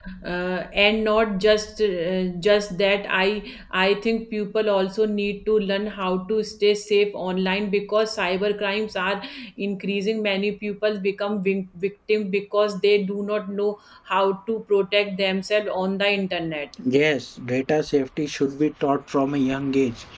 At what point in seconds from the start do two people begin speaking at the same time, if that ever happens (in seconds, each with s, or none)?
none